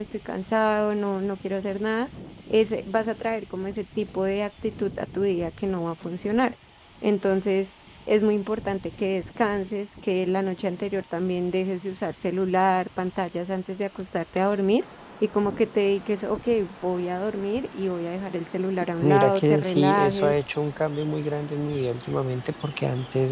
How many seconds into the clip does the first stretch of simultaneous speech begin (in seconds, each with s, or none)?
19.0 s